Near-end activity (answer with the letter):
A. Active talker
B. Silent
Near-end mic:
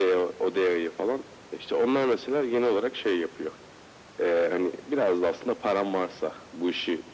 B